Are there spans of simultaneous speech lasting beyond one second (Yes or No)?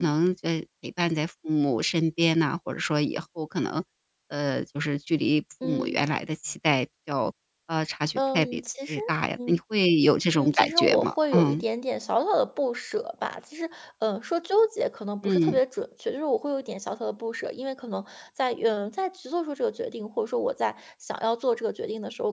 Yes